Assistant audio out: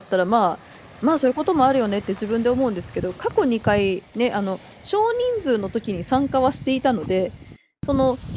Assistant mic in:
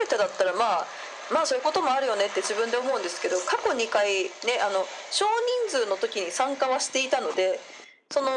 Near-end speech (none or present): none